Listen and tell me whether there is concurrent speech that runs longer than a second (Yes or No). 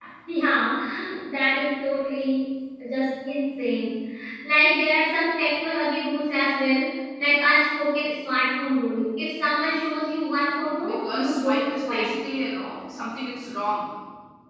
Yes